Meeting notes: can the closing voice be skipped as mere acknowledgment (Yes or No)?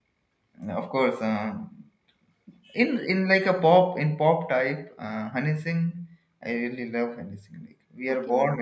Yes